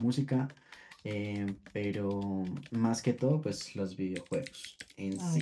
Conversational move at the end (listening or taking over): taking over